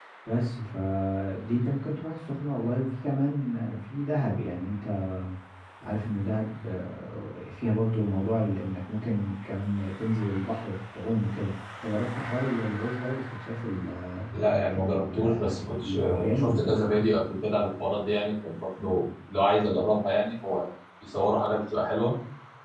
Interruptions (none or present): present